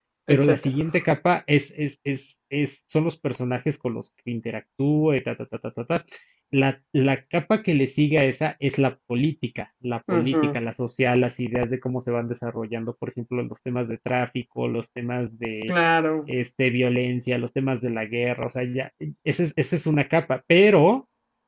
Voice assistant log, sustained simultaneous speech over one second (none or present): none